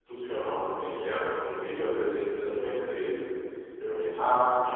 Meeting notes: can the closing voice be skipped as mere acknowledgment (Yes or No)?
Yes